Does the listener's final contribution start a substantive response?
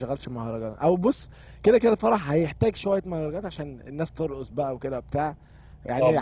No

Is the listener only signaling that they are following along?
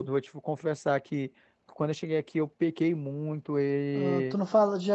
No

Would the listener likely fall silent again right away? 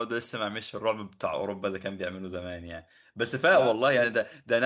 Yes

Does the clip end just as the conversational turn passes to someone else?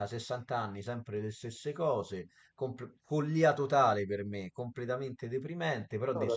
No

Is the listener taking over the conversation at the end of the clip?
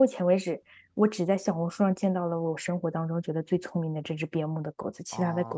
Yes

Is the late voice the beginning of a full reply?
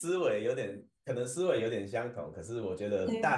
No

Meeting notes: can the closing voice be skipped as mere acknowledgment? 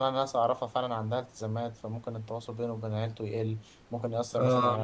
Yes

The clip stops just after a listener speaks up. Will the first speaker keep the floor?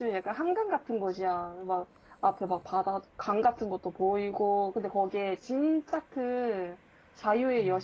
Yes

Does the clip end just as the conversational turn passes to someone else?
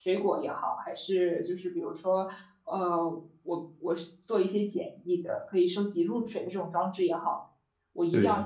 No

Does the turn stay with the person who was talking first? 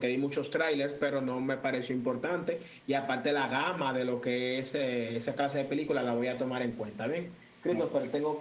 Yes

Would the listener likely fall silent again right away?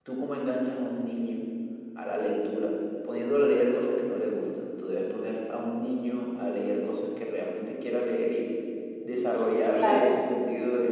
Yes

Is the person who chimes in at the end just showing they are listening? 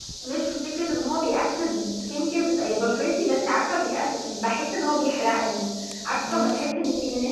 Yes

